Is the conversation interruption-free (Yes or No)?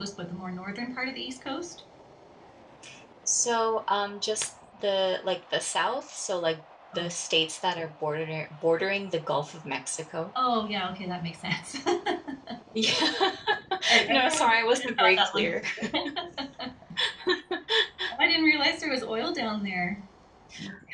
No